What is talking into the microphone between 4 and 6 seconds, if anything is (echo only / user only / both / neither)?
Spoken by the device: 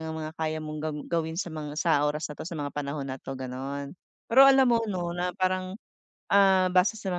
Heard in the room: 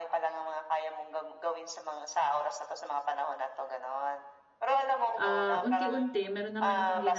both